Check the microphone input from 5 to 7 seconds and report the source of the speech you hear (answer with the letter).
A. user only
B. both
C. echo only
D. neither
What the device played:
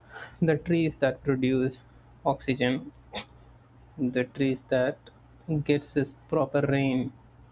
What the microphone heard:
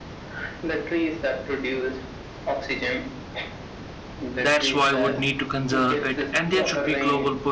B